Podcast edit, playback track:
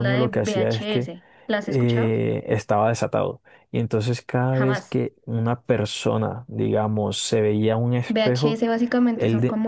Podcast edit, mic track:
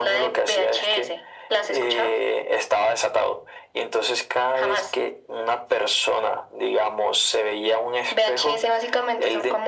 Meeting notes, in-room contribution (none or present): none